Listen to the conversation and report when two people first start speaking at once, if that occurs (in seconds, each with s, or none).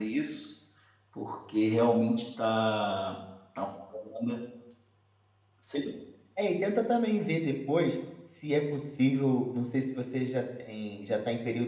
none